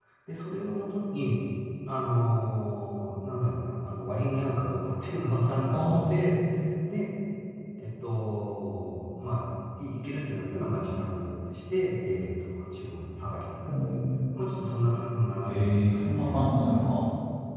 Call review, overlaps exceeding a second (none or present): present